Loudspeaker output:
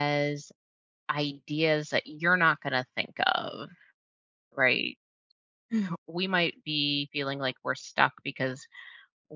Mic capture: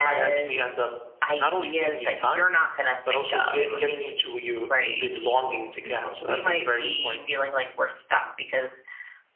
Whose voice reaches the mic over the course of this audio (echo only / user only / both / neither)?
both